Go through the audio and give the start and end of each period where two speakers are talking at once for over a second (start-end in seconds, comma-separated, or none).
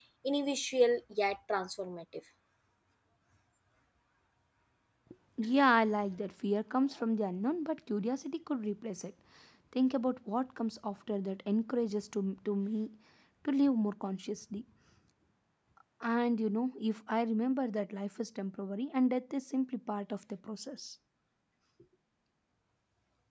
none